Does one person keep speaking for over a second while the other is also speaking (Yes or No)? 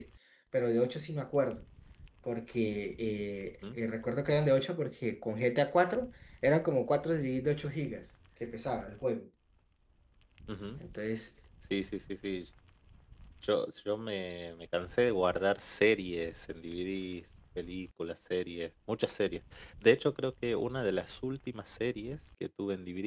No